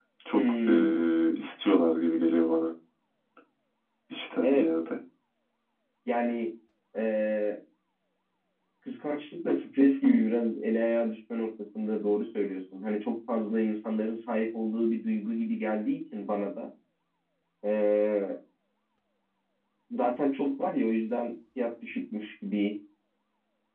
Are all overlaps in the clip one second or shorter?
Yes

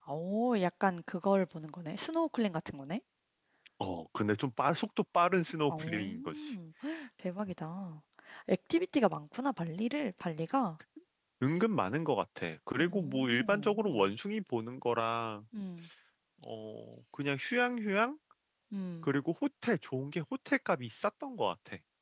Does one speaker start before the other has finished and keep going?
Yes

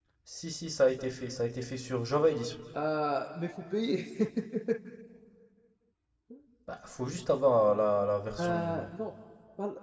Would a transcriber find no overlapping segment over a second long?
Yes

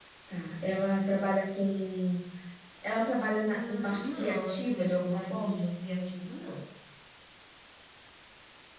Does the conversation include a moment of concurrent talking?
Yes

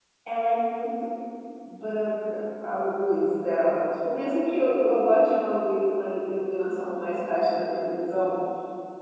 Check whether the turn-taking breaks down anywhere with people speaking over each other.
No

